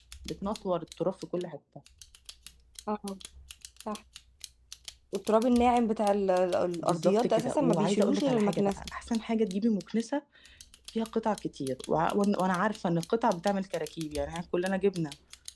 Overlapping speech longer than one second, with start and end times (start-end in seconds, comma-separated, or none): 6.8-8.7